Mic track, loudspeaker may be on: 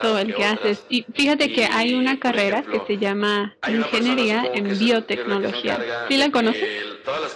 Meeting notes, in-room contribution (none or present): present